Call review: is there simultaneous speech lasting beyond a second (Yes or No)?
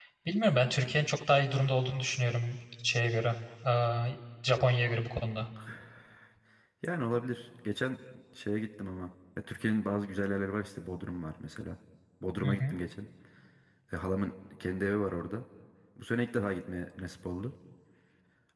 No